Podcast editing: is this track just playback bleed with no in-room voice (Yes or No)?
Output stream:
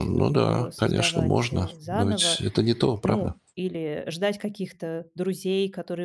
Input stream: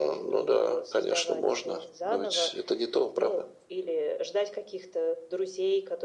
Yes